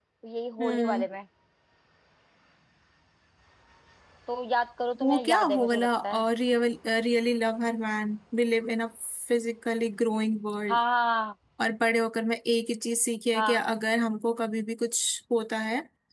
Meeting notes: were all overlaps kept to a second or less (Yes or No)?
No